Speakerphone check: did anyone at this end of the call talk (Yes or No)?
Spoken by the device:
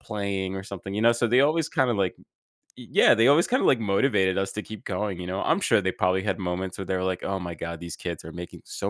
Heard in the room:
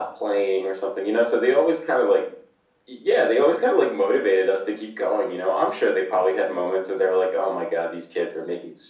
No